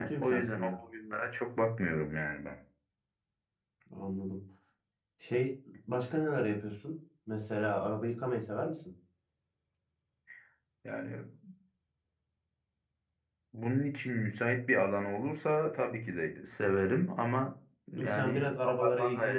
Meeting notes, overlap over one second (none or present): present